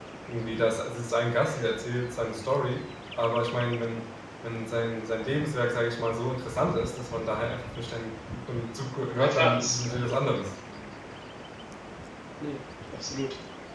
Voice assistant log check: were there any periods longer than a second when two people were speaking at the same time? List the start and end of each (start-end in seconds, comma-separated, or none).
9.1-10.4